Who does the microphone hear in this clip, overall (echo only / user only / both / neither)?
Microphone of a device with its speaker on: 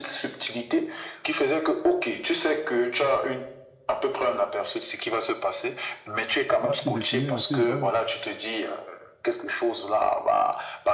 both